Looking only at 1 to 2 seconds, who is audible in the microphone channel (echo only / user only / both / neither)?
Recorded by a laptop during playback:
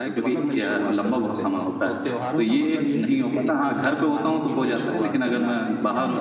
both